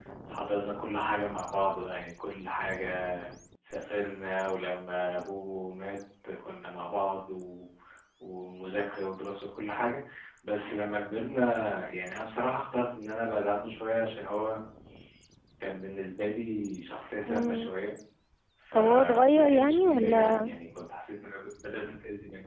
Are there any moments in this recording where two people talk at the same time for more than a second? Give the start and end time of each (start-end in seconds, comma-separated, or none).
18.7-20.5